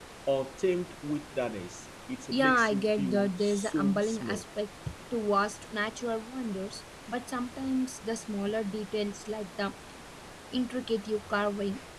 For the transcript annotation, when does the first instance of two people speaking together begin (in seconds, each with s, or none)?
2.3 s